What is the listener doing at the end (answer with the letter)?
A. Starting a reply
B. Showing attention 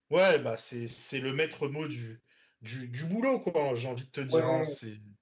A